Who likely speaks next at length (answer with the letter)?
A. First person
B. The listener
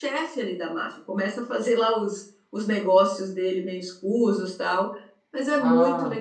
B